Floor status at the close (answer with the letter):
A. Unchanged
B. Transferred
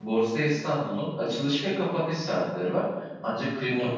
A